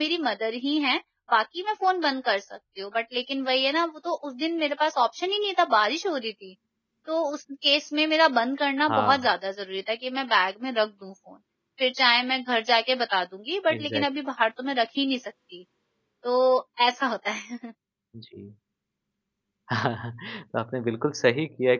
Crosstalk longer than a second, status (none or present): none